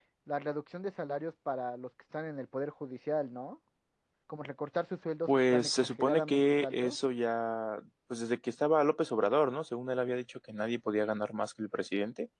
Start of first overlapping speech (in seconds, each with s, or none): 5.3 s